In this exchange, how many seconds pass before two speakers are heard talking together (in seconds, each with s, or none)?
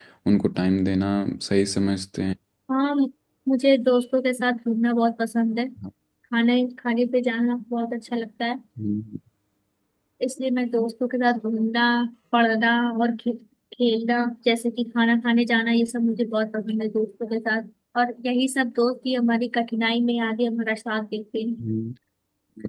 none